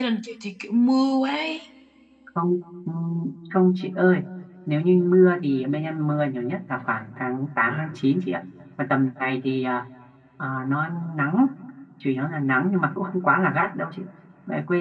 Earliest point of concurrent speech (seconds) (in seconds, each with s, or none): none